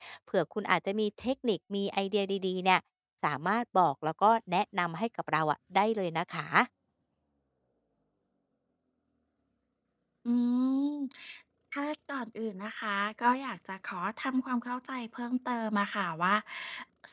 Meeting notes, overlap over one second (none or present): none